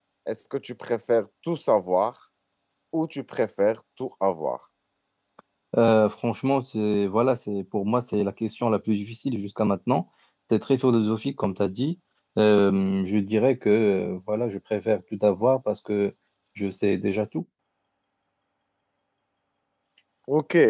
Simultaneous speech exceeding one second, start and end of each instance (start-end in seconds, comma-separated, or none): none